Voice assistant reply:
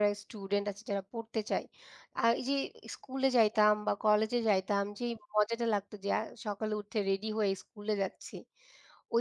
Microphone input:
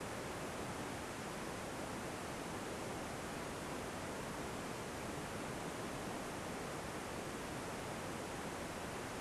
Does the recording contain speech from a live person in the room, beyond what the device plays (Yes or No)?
No